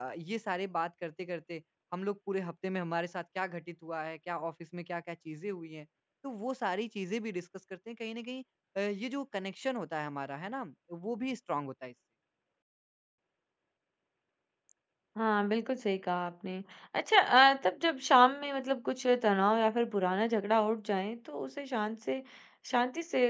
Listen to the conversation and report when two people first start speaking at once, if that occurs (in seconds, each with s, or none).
none